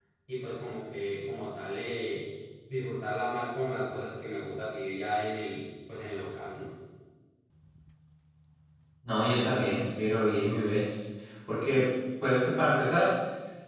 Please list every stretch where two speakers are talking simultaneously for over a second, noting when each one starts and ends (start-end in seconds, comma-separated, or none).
none